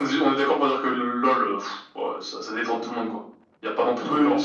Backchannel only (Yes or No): No